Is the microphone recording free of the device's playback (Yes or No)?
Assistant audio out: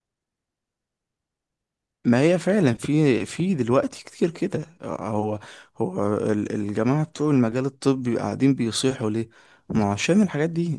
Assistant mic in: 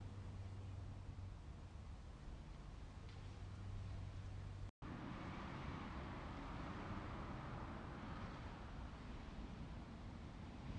Yes